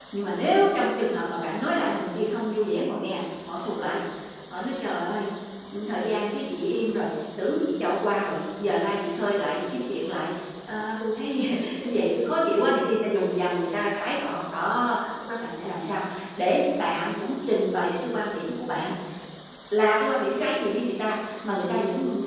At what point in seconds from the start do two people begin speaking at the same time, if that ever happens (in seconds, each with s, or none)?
none